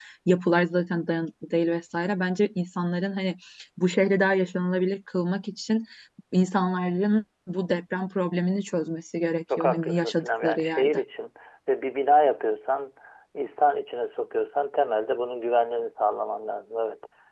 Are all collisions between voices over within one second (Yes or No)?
No